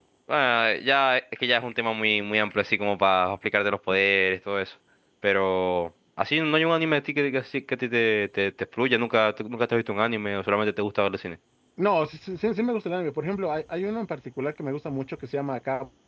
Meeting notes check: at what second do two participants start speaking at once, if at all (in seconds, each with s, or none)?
none